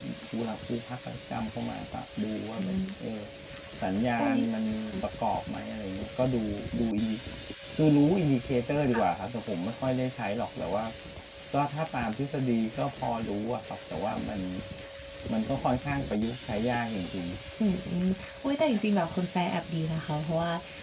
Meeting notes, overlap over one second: none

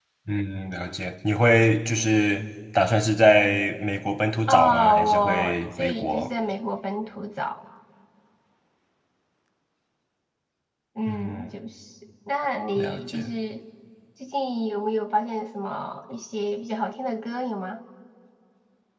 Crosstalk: present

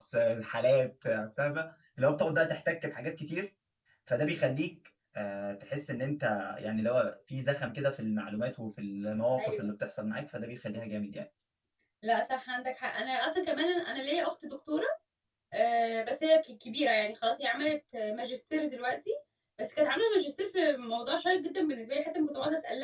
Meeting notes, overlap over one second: none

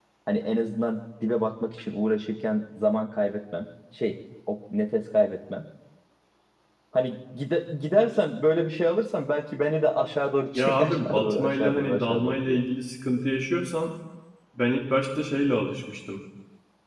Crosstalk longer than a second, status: present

